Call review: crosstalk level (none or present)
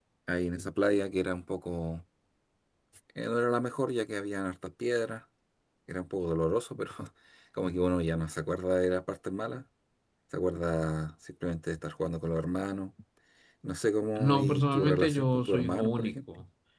present